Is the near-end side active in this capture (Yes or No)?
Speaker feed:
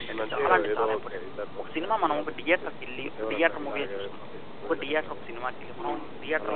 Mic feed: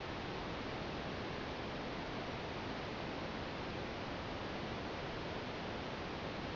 No